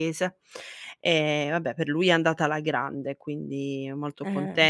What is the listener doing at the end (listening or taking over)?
listening